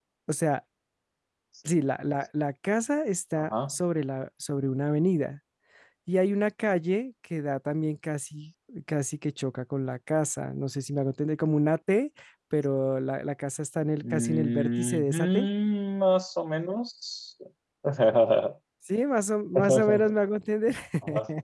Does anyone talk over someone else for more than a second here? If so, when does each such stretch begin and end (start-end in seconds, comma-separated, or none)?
14.0-15.5